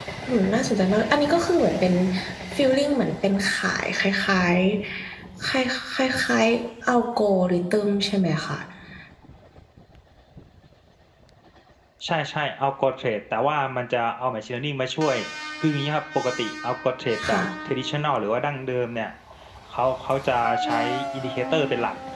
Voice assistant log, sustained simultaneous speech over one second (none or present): none